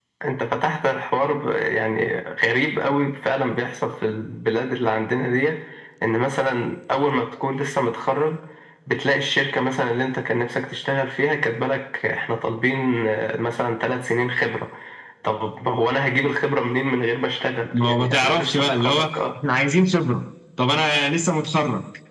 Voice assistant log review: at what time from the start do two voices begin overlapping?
17.7 s

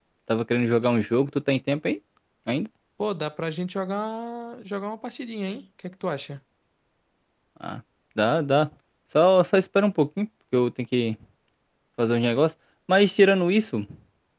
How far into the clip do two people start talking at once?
none

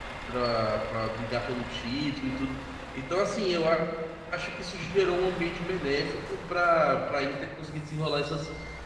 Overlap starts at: none

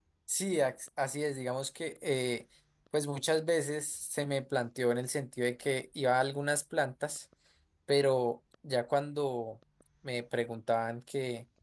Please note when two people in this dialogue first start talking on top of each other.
none

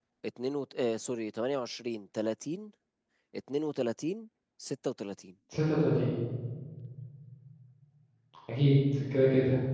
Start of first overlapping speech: none

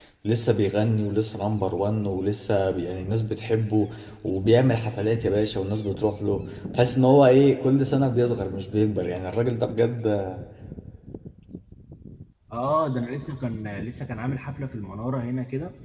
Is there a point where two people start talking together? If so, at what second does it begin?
none

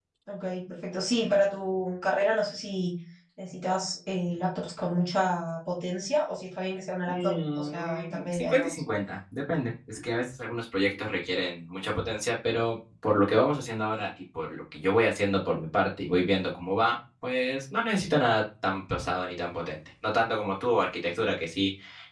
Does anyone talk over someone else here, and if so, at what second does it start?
7.1 s

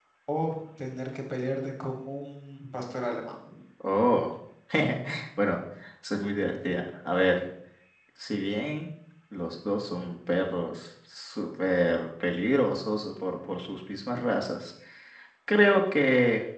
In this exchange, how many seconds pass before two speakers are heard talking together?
none

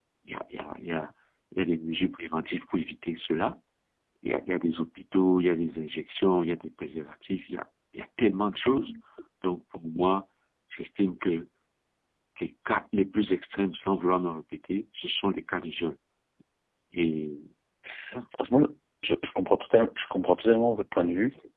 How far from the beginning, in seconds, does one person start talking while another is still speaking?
none

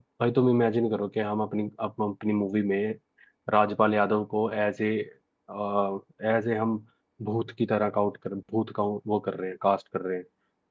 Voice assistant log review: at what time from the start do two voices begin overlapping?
none

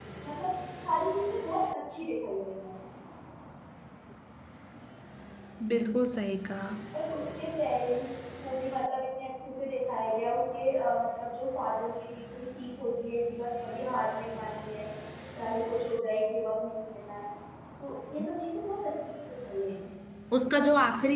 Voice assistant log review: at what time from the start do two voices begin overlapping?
none

